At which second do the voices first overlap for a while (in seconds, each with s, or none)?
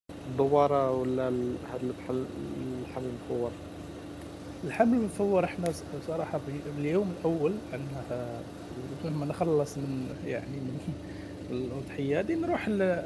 none